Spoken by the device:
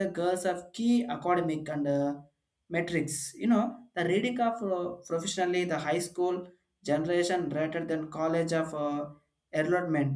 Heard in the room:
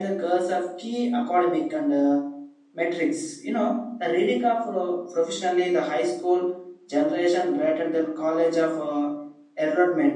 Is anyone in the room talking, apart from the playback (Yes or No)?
No